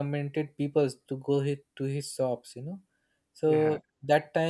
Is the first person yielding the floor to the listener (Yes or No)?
No